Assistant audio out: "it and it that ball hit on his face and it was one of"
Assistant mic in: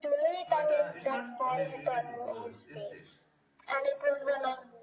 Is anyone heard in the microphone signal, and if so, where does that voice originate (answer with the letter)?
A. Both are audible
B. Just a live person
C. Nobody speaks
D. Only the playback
A